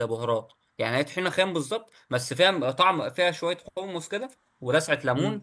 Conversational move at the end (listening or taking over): taking over